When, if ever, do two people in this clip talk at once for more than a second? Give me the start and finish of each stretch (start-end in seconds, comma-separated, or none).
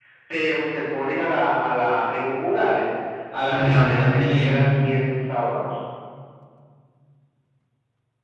3.3-4.7